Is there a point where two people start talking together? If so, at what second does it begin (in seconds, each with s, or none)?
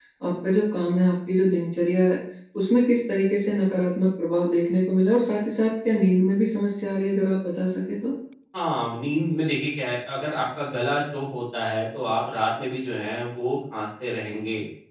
none